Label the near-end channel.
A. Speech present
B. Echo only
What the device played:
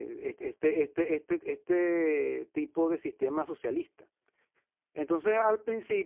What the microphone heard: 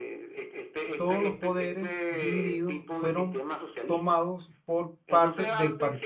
A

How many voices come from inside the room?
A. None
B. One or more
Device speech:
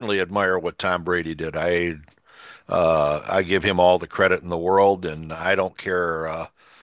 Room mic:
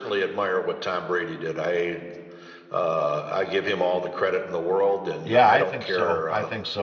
B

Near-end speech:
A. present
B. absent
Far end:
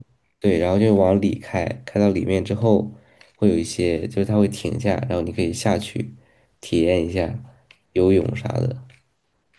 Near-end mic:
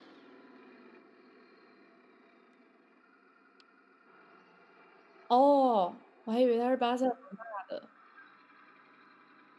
A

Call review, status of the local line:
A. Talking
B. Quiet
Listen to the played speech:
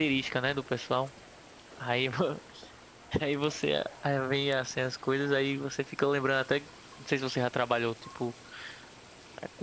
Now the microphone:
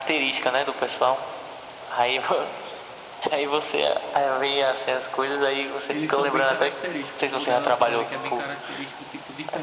A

